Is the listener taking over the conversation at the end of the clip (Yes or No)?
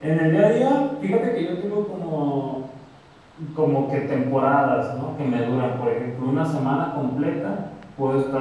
No